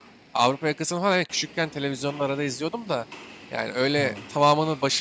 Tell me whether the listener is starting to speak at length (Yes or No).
No